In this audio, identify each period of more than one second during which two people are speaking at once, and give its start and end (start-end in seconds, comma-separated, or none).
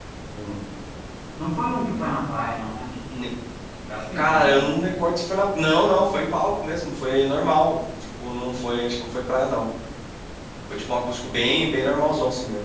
none